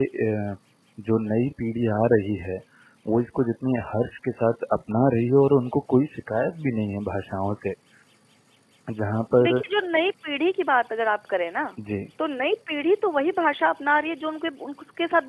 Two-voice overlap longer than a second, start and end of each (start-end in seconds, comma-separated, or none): none